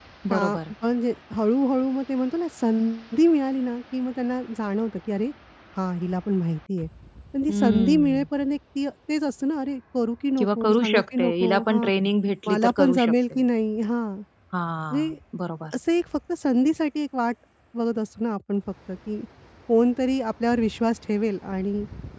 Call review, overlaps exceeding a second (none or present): present